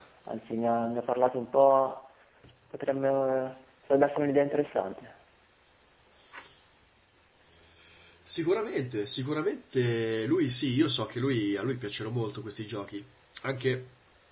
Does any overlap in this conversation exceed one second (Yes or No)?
No